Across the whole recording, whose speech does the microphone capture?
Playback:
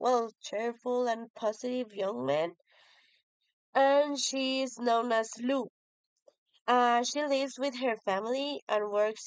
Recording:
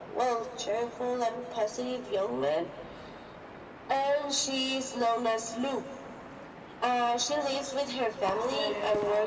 both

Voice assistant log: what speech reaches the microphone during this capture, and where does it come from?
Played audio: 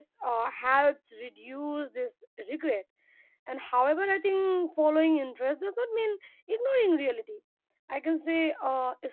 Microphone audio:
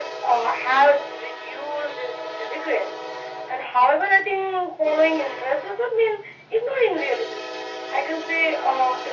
echo only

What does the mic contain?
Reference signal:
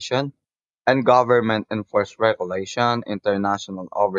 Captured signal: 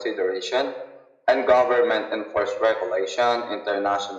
echo only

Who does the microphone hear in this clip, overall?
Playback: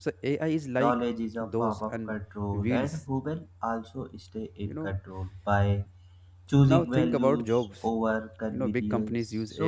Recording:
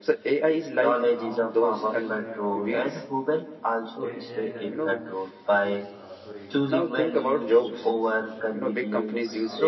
both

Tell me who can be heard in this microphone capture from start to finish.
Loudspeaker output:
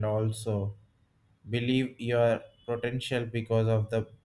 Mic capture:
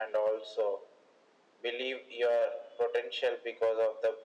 echo only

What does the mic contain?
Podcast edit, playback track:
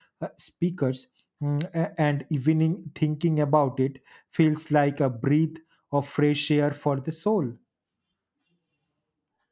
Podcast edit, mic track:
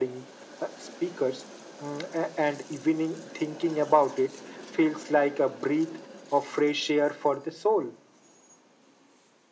echo only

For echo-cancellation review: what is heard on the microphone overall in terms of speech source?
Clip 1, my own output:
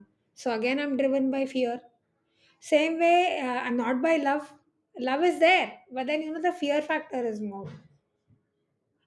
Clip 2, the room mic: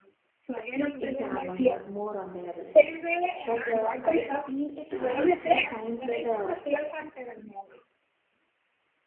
both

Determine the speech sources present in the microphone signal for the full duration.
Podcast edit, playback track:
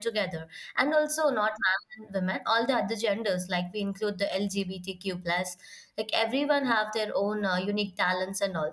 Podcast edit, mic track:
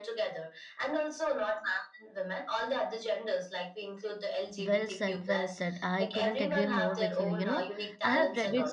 both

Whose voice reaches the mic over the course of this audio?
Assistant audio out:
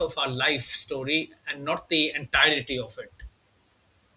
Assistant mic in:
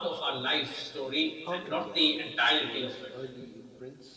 both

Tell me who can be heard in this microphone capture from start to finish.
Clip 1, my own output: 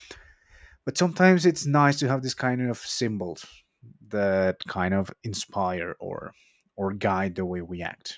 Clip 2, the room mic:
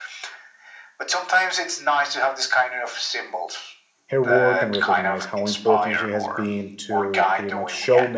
both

